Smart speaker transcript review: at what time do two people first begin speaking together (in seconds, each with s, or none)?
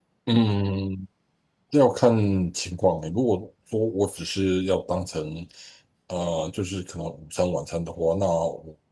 none